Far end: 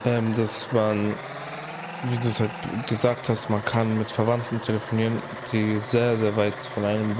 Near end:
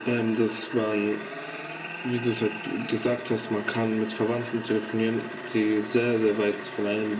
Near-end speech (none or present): none